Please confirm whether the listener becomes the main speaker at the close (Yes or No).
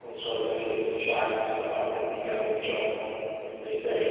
Yes